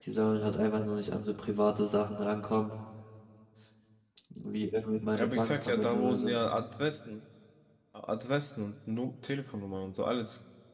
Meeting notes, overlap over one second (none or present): present